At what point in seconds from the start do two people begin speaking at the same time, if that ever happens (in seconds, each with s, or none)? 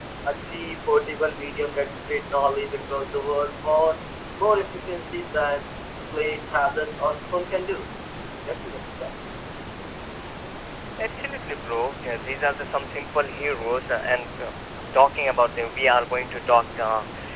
none